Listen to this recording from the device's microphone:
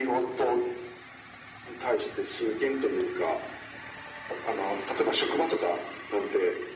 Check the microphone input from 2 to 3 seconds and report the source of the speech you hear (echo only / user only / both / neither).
echo only